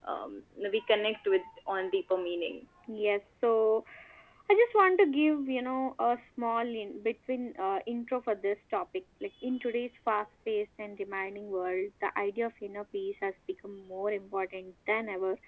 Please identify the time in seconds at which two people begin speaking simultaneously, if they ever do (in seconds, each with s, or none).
none